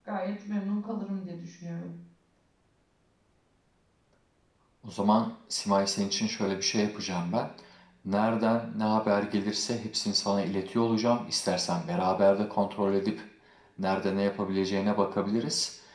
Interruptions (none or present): none